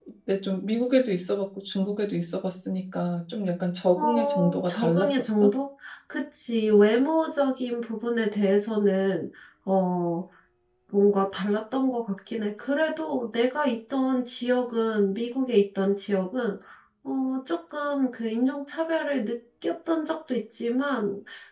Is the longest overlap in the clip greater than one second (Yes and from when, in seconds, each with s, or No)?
Yes, from 4.0 s